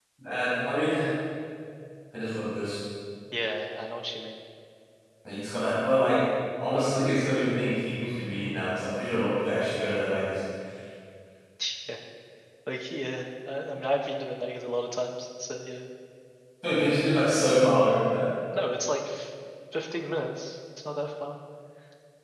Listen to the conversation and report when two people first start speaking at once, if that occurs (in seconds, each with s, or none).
none